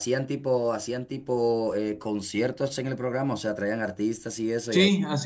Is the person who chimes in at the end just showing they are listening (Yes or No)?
No